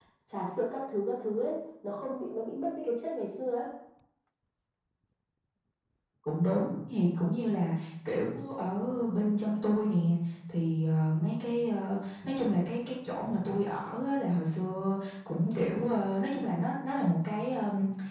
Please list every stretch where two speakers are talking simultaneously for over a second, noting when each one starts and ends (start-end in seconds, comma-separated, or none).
none